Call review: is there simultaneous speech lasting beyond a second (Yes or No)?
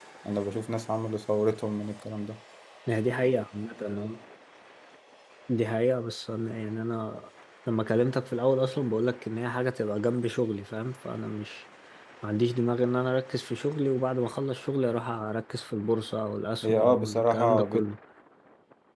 Yes